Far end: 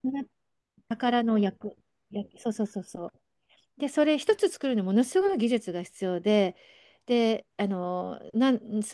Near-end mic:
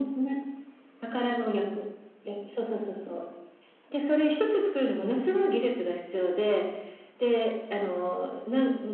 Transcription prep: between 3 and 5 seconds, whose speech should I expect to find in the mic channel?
echo only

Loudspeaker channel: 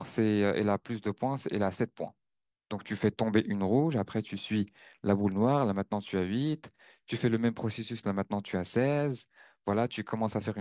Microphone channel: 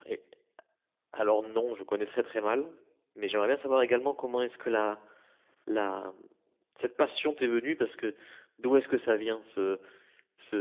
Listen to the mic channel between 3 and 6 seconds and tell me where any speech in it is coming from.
user only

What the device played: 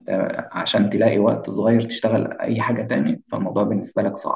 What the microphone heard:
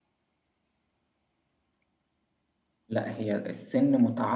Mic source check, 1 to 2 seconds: neither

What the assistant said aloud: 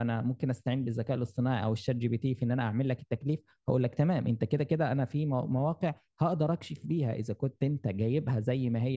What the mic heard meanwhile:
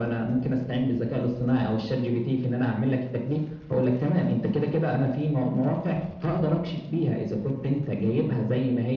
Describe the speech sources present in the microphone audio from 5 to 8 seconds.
echo only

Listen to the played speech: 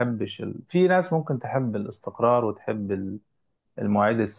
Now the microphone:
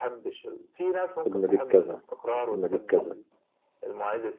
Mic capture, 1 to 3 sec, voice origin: both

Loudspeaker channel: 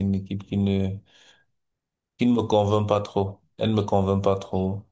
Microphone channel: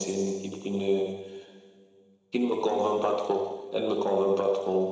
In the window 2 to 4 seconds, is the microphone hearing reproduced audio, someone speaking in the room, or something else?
echo only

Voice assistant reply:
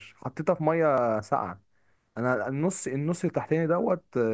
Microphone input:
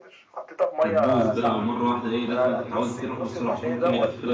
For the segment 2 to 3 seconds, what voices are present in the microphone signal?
both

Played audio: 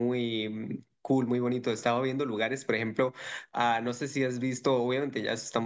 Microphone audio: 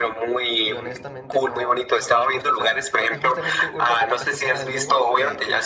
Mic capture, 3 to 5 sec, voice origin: both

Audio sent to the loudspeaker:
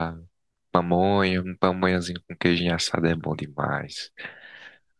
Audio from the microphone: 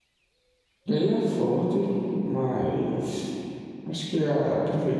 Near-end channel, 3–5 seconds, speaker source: user only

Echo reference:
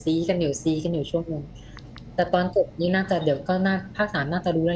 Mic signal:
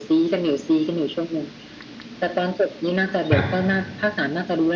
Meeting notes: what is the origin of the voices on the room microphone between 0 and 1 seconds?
echo only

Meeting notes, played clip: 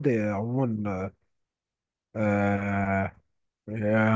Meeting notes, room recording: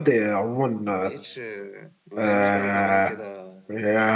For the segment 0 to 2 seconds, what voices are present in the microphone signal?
both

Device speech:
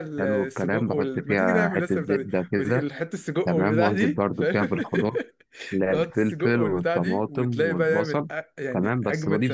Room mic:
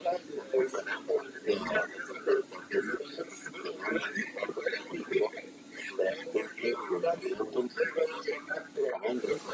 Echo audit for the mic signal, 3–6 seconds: echo only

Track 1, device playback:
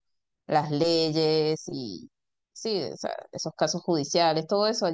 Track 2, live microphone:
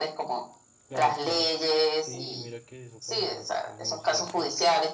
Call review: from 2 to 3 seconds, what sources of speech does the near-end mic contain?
both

